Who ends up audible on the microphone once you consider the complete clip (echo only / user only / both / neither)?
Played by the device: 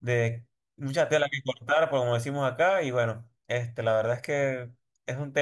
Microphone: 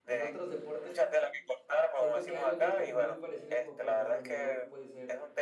both